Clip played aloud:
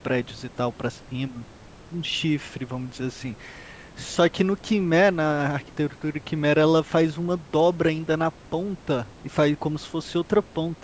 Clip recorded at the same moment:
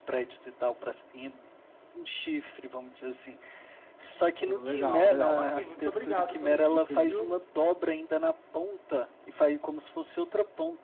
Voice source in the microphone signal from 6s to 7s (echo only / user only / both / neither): both